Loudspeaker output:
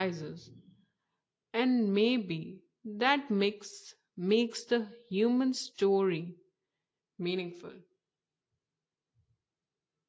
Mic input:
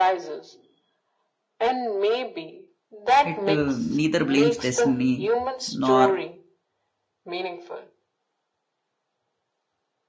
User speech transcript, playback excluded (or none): It uh, neither blames destiny nor